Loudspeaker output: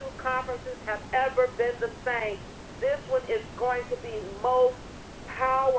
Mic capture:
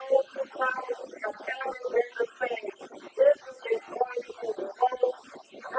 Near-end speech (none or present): none